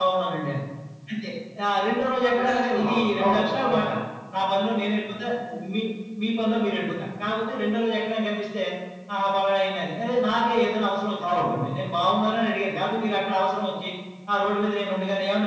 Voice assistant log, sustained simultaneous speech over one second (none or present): present